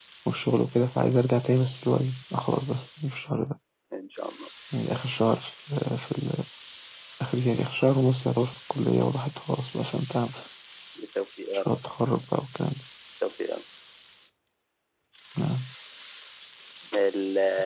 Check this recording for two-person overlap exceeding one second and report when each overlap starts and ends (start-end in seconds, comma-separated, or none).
none